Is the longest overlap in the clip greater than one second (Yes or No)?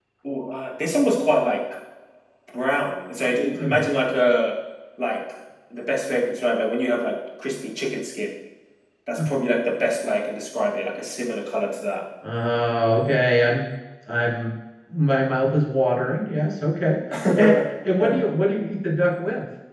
No